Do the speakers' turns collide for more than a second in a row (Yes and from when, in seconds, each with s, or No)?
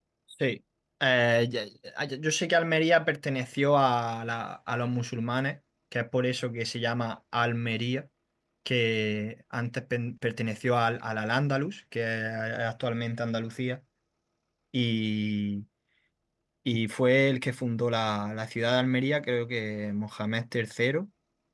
No